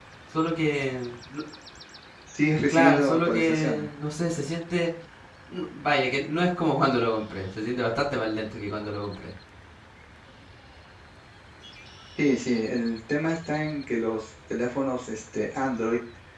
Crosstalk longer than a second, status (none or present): present